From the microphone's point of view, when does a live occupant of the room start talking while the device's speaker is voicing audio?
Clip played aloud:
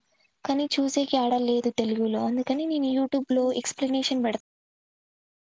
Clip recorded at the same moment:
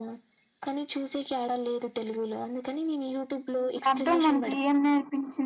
3.8 s

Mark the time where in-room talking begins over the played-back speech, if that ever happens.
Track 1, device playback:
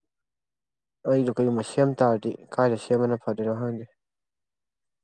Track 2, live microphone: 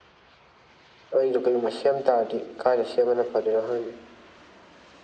none

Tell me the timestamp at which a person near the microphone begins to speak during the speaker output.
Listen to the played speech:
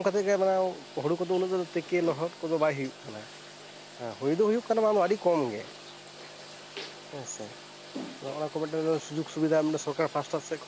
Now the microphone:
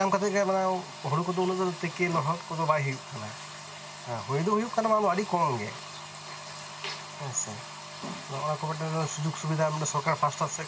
none

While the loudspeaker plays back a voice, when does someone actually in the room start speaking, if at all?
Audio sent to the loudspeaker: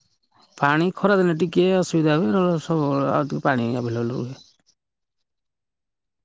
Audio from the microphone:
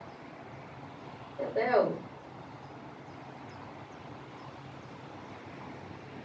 1.4 s

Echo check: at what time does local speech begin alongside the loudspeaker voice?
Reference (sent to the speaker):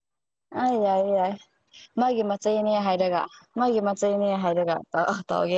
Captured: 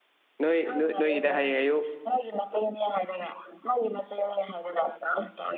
0.4 s

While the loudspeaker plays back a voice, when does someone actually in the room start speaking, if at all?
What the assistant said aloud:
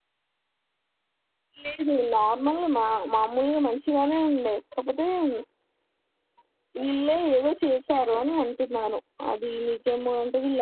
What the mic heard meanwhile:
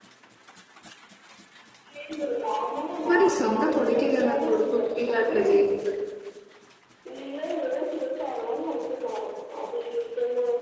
3.1 s

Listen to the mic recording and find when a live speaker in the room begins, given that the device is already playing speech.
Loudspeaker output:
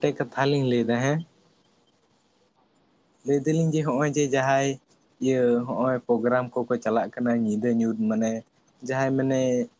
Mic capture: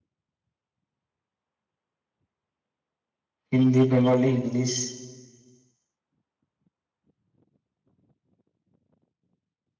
3.5 s

